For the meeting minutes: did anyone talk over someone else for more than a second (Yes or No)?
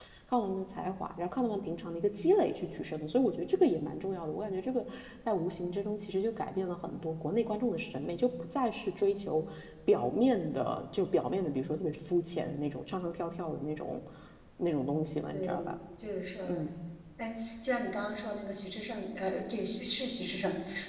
No